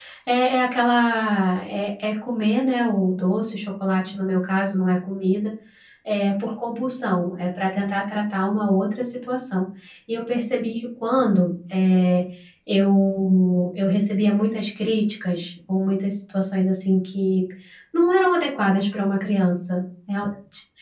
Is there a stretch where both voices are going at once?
No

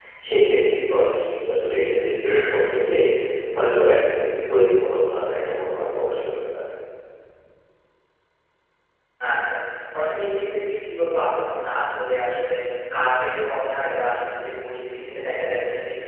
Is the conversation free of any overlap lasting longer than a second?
Yes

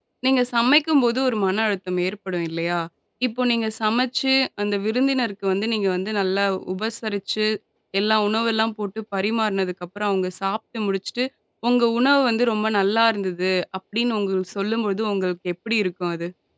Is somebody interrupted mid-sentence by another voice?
No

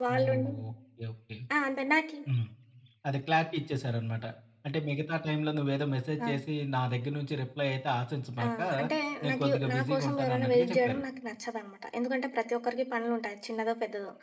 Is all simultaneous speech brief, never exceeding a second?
No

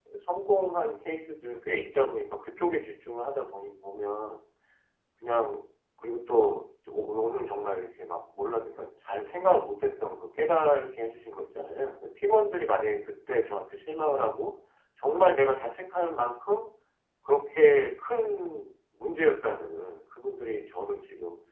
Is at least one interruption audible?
No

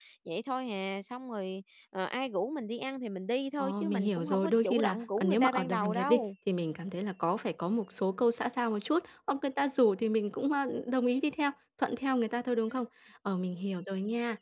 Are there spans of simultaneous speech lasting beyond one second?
Yes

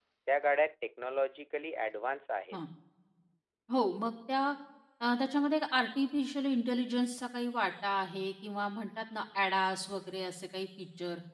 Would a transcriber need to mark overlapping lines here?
No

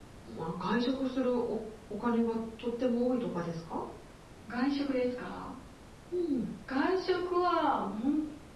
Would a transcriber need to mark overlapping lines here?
No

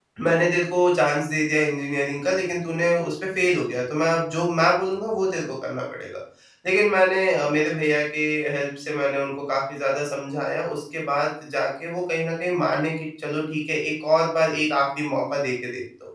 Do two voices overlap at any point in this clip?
No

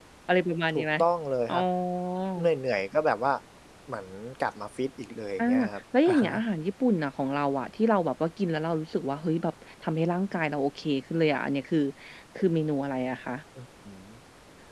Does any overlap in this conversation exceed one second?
No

